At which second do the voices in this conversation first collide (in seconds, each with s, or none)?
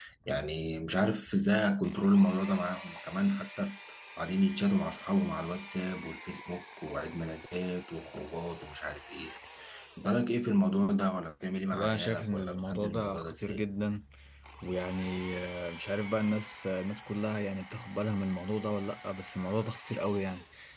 11.7 s